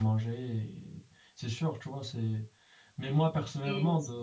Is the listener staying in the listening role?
Yes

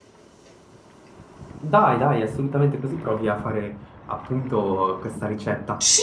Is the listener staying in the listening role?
No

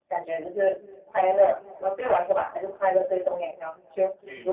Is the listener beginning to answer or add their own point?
No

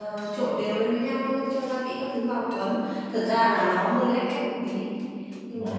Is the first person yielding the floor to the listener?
Yes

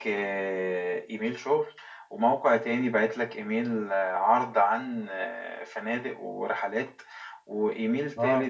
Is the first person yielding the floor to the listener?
No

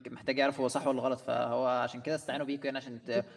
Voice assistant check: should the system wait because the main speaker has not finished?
Yes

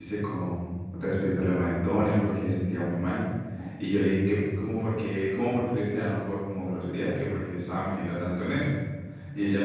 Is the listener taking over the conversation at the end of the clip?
No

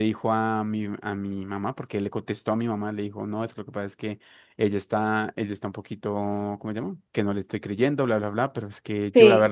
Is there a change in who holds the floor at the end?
No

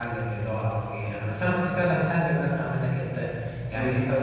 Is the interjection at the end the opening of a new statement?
No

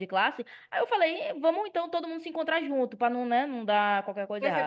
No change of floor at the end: No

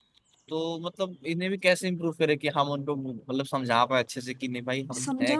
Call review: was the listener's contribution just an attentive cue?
No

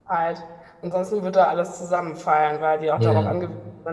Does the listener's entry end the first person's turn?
No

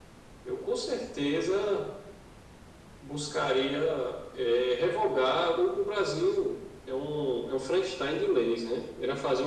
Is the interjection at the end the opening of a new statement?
No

